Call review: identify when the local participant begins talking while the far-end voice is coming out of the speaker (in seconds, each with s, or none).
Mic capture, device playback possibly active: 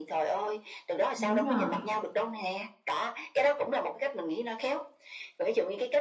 1.2 s